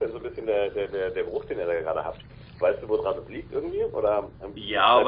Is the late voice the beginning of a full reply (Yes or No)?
Yes